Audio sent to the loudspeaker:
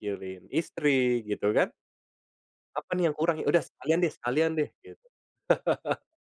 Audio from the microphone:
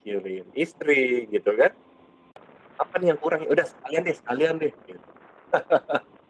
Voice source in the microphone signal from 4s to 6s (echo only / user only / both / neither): echo only